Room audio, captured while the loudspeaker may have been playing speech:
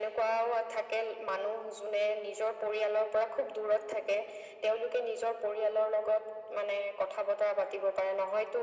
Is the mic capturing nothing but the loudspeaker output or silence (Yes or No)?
Yes